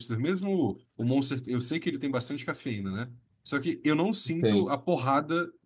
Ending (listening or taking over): listening